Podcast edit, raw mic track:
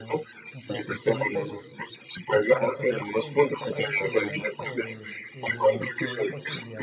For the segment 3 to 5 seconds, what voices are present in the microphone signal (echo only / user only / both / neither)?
both